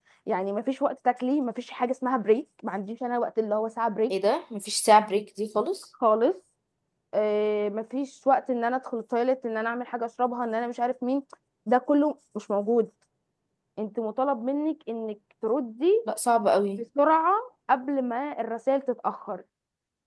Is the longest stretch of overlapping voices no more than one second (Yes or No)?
Yes